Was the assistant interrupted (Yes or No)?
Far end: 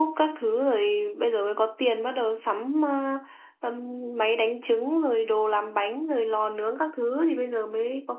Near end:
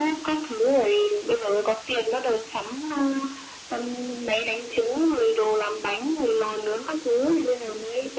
No